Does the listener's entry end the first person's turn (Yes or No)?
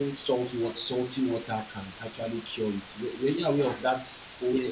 Yes